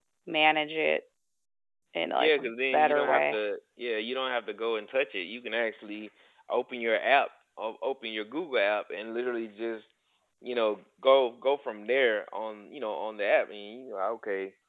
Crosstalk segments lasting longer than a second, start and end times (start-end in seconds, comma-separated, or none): 2.1-3.4